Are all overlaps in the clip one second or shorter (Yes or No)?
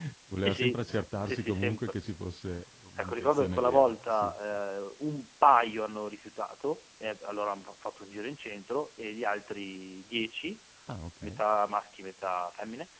No